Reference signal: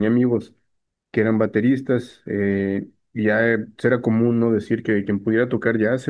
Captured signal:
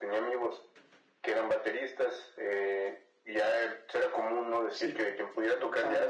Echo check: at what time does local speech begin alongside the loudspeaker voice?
5 s

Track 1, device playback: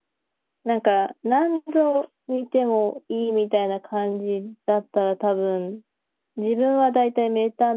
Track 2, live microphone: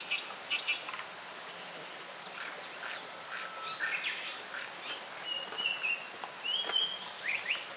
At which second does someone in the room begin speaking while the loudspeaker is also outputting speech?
none

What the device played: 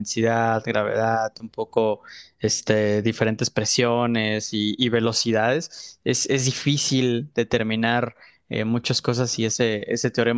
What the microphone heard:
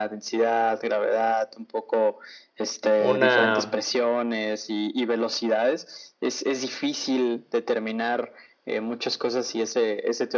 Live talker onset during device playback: 3 s

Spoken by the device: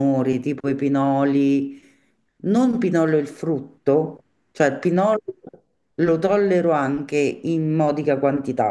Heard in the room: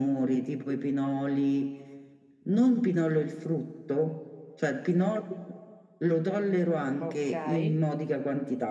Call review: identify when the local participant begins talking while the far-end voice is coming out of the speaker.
7 s

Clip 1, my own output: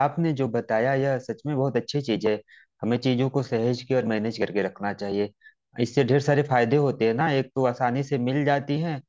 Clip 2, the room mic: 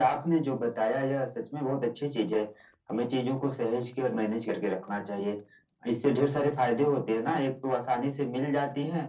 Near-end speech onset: none

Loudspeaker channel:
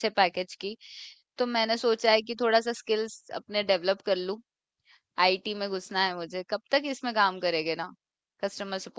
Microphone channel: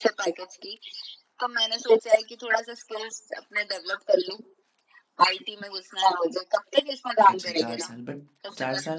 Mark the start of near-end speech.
7 s

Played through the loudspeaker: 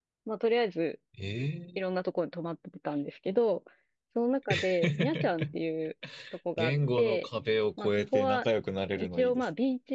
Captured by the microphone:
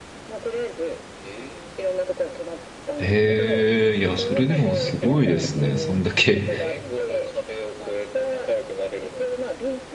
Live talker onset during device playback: 3 s

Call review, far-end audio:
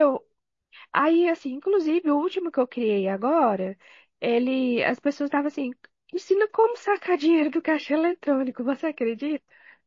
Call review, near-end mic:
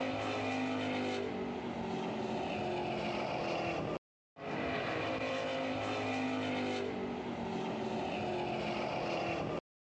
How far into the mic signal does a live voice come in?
none

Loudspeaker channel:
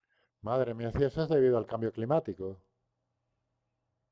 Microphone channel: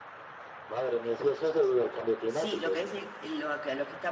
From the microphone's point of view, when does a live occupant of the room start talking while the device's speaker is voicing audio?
2 s

